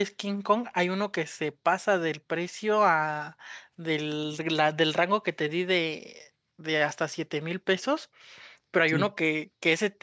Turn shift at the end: No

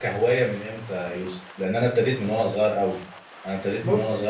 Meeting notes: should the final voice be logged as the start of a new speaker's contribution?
No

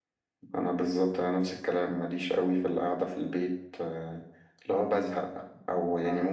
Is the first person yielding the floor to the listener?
No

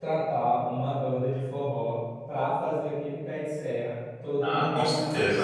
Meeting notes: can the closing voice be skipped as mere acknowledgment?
No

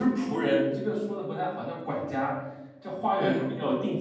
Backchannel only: Yes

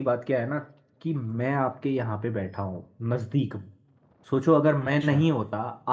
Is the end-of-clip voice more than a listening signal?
No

